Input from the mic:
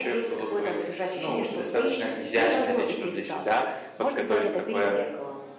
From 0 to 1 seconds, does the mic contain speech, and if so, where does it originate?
echo only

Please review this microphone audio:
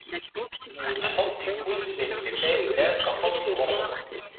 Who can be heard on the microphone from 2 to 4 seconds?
both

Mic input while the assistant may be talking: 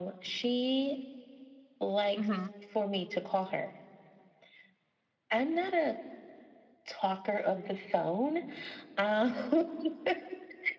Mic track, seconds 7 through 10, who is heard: echo only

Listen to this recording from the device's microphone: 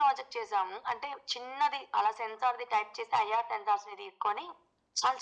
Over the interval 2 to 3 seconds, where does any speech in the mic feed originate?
echo only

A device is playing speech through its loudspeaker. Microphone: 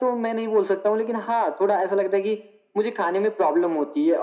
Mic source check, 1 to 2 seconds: echo only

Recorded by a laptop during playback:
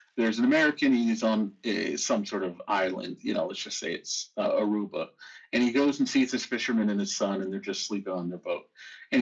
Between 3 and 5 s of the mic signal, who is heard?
echo only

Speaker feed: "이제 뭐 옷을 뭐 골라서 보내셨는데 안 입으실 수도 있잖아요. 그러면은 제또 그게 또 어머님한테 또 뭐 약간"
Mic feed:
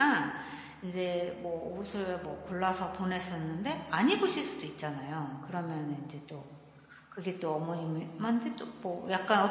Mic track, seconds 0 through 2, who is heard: echo only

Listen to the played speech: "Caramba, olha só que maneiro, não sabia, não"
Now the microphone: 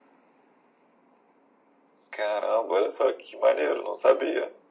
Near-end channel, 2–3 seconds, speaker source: echo only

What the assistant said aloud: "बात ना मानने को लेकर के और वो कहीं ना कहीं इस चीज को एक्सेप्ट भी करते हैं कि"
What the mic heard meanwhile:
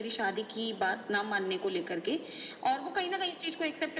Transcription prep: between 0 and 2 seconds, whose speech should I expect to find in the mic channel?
echo only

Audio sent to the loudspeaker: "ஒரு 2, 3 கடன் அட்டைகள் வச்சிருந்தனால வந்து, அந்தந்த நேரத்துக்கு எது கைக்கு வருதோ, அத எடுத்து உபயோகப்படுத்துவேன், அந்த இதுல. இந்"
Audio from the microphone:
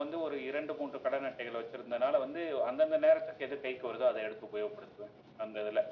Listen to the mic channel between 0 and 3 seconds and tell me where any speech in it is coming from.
echo only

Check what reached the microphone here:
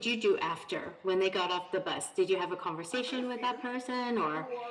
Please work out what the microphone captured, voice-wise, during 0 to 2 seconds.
echo only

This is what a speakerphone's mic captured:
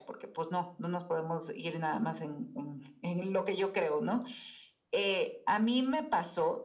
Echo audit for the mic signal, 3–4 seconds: echo only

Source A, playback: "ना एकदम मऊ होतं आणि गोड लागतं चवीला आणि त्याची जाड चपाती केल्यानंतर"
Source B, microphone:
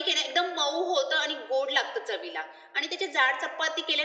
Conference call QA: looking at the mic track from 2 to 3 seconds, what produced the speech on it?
echo only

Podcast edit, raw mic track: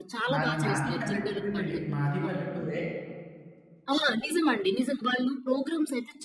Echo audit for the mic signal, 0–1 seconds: both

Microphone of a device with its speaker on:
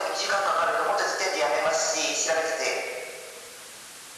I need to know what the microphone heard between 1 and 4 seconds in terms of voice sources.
echo only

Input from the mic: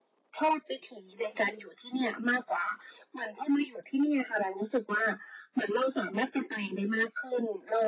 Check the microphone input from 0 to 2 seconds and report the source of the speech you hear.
echo only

